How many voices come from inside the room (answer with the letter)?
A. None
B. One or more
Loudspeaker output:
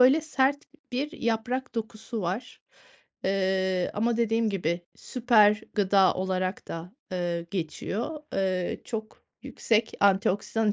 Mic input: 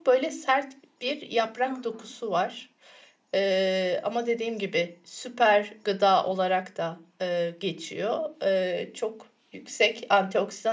B